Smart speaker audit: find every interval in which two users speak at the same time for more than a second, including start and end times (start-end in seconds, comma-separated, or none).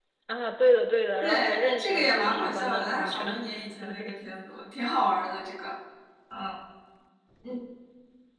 1.2-3.3